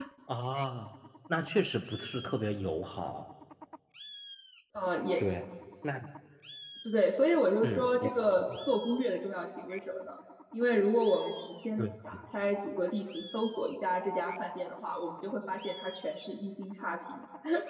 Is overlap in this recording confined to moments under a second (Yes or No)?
Yes